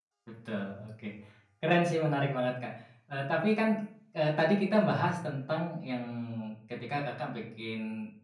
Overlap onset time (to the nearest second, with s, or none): none